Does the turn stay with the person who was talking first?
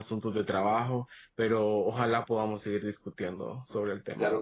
No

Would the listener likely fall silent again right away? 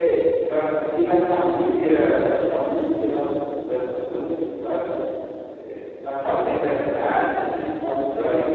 Yes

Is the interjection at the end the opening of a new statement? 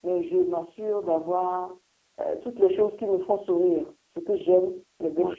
No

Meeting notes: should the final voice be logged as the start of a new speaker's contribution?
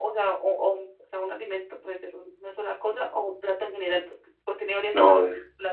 Yes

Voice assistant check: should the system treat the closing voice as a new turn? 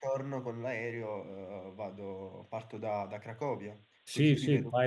Yes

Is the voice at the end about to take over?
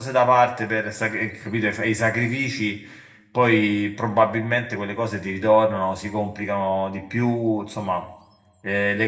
Yes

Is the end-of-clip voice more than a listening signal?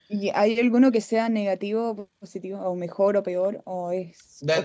Yes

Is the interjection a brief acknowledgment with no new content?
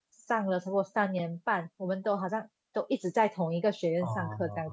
No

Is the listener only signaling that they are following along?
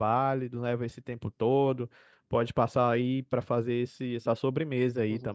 No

